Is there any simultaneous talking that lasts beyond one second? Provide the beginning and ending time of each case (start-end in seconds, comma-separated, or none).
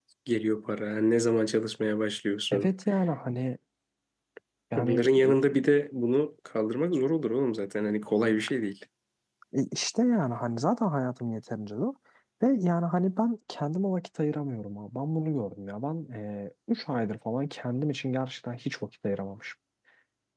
none